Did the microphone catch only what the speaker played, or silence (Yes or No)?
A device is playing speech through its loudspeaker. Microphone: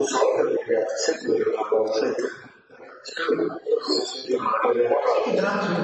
No